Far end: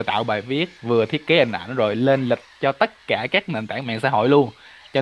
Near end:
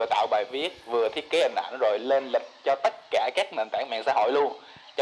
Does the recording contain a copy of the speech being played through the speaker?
Yes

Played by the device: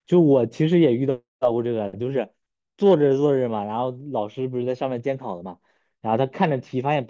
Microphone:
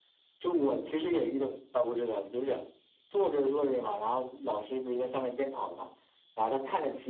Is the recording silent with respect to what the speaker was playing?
No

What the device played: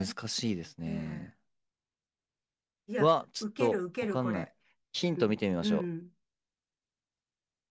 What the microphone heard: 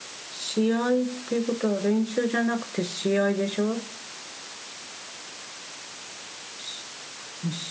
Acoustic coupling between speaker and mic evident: No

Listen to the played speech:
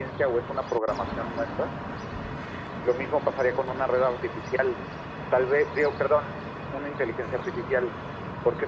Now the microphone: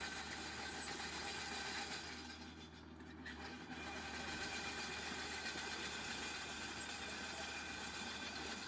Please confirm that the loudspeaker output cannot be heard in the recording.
Yes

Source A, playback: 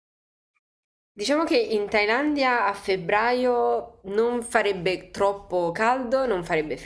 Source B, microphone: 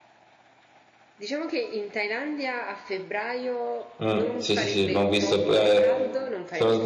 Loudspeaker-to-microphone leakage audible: Yes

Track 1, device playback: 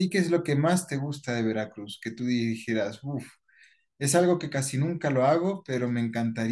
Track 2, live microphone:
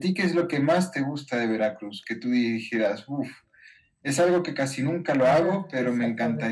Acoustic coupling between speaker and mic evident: Yes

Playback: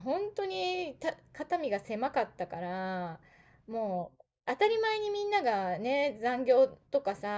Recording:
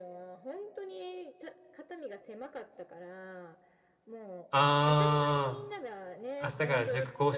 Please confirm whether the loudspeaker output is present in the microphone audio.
Yes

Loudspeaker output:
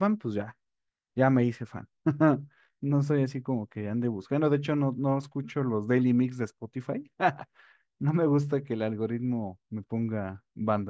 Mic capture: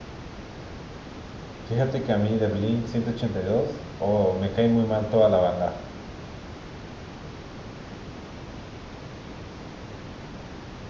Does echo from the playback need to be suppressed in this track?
No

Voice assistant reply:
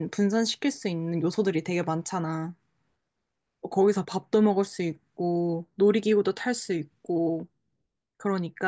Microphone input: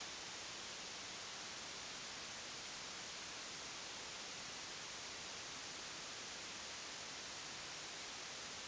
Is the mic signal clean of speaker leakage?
Yes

